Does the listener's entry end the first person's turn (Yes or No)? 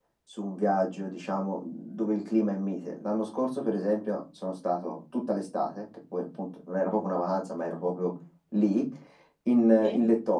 No